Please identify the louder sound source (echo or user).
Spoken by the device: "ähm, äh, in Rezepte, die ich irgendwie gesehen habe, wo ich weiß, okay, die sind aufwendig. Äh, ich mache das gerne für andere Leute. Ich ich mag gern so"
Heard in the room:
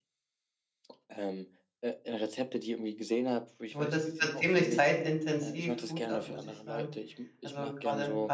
user